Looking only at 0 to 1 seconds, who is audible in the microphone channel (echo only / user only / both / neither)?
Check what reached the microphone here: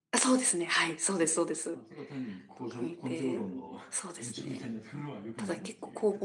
echo only